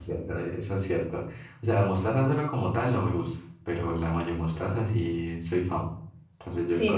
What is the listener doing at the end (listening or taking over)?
taking over